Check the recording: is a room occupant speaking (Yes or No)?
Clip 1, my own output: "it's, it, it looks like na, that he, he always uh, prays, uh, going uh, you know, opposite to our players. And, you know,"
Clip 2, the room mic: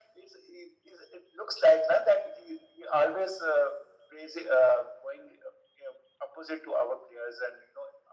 No